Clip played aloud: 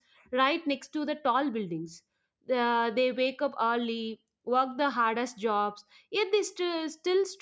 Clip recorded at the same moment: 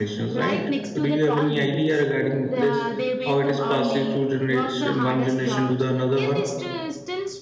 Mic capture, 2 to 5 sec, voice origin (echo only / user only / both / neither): both